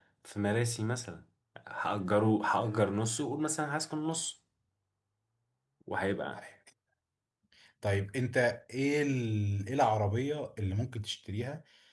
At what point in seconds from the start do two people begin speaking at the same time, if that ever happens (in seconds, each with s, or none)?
none